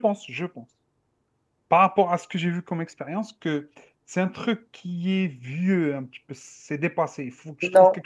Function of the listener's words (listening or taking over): listening